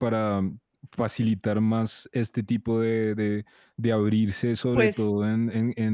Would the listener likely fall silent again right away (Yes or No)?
Yes